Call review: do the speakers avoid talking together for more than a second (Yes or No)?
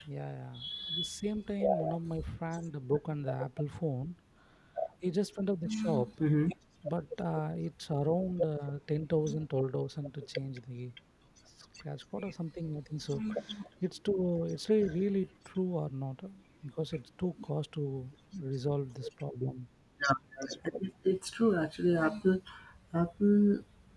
Yes